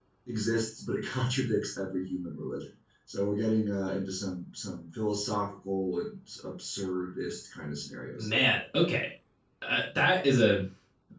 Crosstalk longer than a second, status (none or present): none